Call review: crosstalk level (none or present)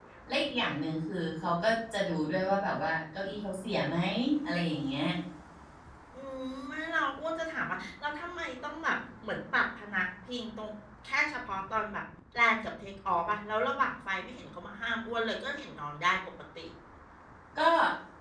none